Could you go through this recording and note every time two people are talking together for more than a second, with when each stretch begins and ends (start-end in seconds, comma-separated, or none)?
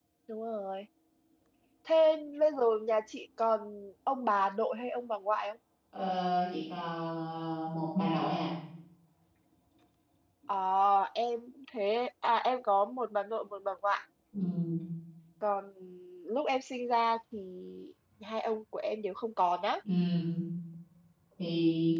none